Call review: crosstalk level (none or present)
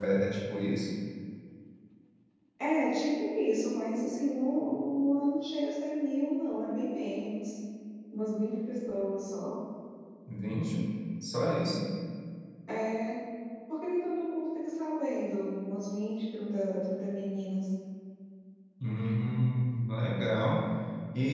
none